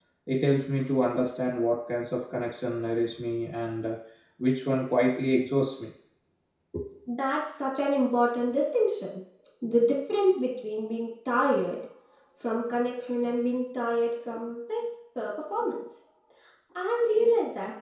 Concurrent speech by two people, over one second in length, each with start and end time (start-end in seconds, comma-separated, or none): none